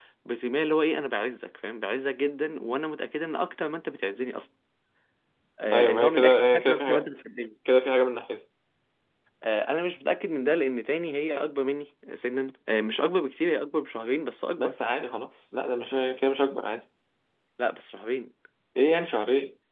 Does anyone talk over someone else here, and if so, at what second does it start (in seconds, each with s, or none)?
5.7 s